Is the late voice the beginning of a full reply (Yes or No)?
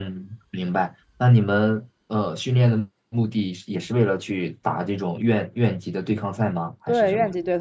Yes